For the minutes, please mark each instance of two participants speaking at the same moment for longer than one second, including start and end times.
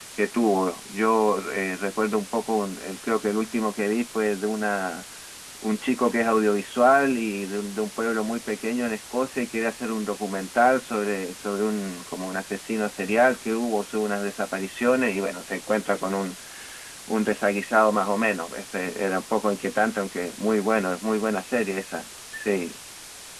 none

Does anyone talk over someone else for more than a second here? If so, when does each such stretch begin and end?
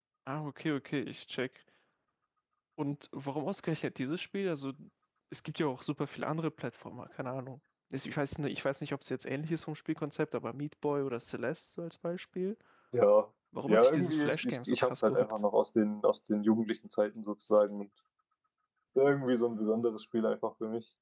13.7-15.4

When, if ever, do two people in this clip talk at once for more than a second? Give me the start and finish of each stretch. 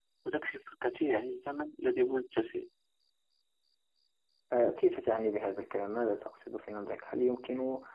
none

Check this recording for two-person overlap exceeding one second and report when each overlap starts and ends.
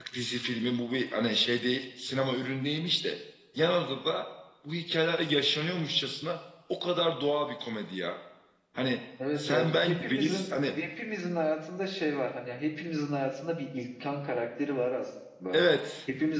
9.4-10.7

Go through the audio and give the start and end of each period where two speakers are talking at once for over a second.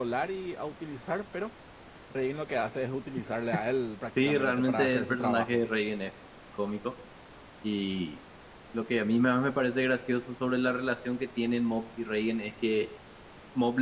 4.1-5.6

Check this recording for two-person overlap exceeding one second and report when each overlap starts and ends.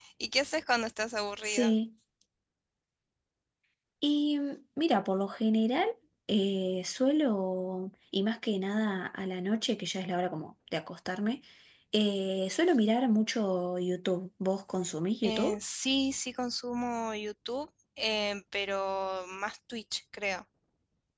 none

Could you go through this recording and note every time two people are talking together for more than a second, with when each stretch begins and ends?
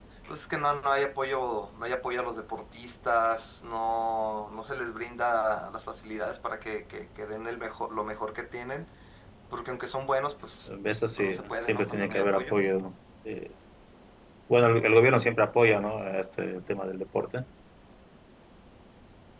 11.2-12.6

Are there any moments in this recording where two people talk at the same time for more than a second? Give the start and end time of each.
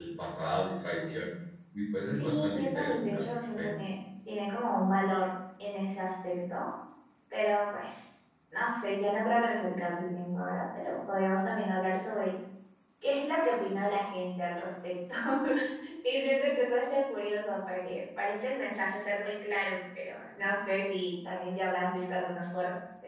2.1-3.7

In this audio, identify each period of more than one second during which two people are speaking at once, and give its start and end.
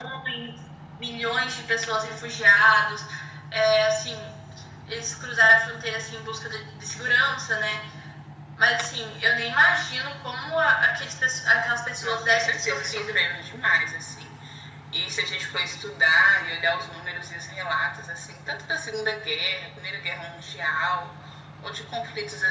12.0-13.2

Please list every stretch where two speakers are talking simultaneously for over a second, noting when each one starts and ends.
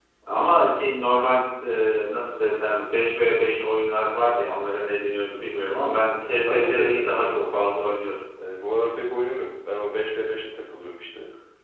6.2-8.0

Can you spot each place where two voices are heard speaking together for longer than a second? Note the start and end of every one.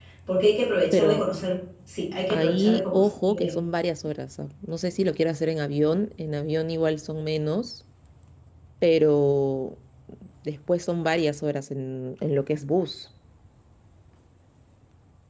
2.3-3.5

